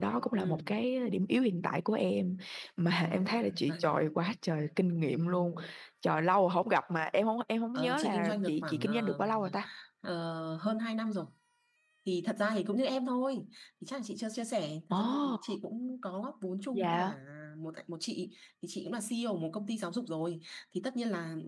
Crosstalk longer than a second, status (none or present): present